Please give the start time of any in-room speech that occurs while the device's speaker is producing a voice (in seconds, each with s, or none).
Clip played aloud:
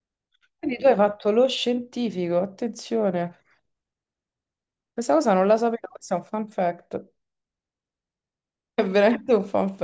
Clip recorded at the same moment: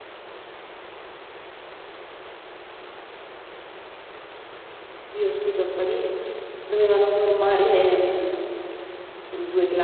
5.1 s